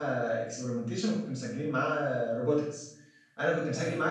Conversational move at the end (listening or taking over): listening